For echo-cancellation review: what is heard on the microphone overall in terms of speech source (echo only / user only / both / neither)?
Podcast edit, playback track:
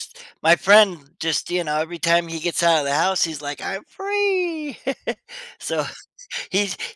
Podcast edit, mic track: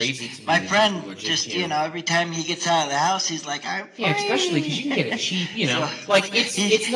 both